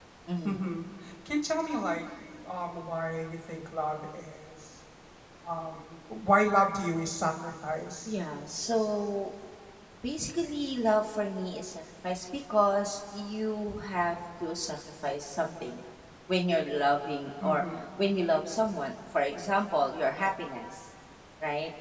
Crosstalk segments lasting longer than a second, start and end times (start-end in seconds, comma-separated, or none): none